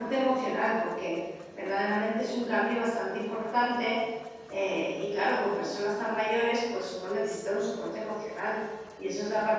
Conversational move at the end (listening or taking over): listening